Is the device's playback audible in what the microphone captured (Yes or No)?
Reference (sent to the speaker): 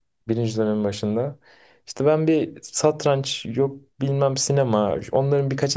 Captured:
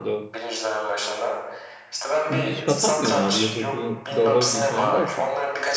Yes